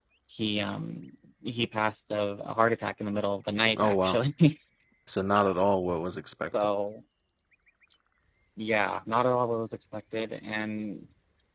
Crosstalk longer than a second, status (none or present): none